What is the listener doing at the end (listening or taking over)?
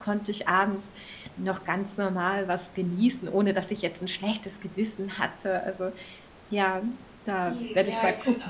taking over